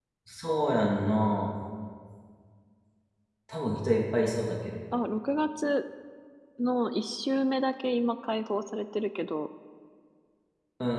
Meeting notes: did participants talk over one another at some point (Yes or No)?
No